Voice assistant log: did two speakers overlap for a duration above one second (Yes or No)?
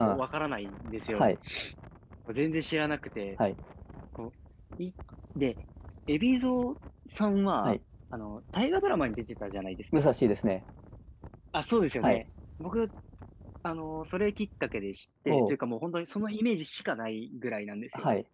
No